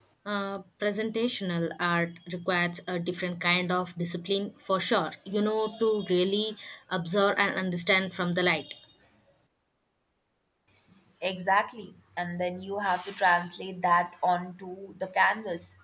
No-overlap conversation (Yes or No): Yes